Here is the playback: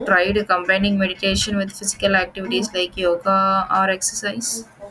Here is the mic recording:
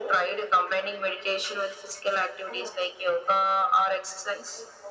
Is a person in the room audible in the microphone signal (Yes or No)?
No